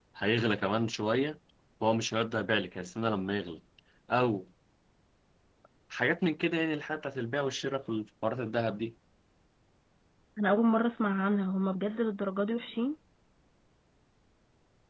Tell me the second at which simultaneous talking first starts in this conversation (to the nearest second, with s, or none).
none